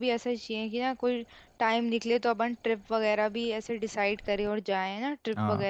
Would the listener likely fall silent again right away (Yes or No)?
No